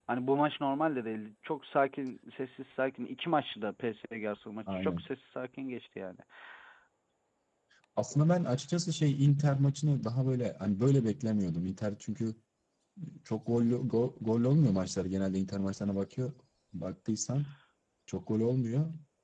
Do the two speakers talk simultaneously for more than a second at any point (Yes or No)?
No